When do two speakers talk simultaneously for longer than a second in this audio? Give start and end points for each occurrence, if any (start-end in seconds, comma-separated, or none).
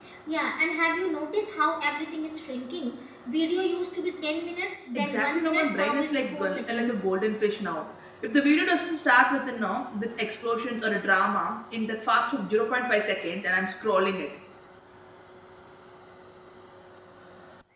5.0-6.9